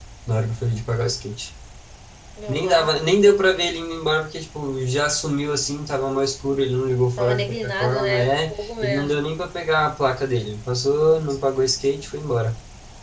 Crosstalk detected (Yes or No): Yes